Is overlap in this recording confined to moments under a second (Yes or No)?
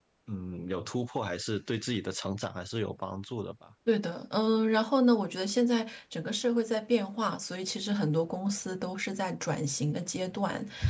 Yes